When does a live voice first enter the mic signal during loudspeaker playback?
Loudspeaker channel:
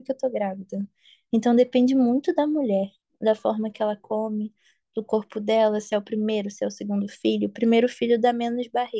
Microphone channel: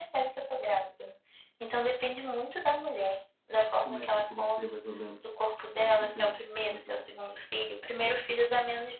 3.8 s

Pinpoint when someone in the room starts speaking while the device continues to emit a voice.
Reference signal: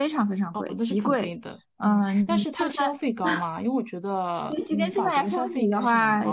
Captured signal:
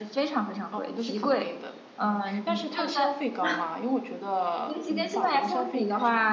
none

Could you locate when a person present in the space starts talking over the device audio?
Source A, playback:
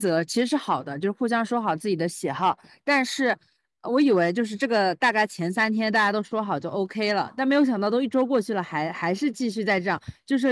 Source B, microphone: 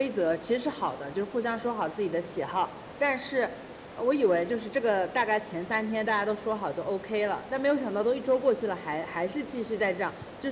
none

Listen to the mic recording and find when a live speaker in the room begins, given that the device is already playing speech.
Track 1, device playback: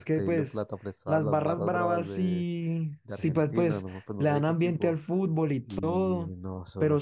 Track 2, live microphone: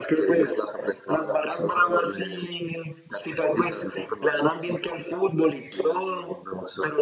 none

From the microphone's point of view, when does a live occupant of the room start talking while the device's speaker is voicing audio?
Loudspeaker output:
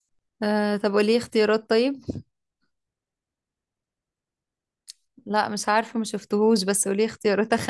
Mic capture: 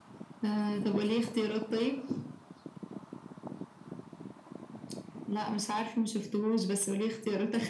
none

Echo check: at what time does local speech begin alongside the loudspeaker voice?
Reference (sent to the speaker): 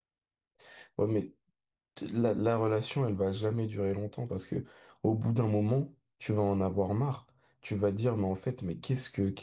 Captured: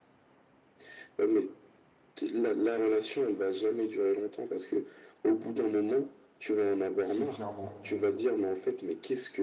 7.0 s

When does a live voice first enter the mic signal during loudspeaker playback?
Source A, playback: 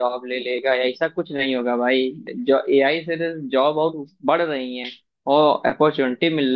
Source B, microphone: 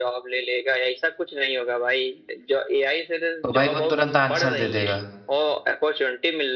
3.4 s

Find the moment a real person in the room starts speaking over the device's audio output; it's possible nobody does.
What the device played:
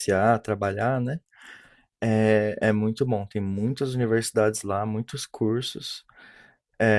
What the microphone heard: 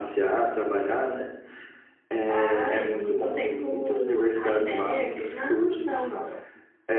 2.3 s

